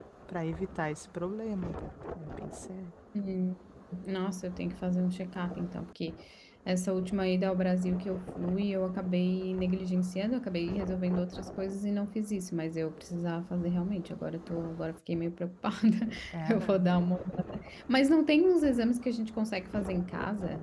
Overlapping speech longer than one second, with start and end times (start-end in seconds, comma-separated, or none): none